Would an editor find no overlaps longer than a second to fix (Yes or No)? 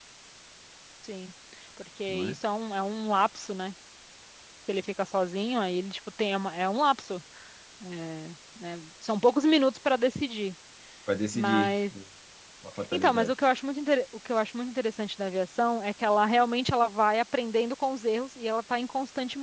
Yes